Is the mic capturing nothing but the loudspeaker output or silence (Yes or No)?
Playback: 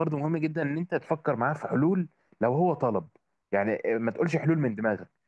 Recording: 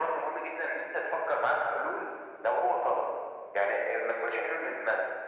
Yes